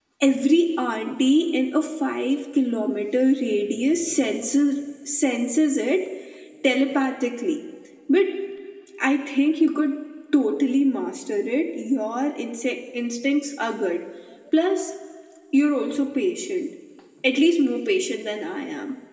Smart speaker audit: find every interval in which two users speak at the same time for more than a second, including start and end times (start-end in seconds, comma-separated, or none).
none